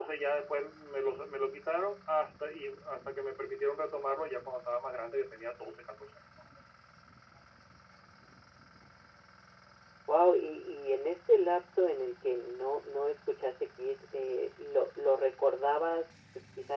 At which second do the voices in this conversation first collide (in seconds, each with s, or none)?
none